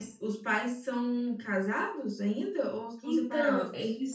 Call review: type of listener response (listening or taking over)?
taking over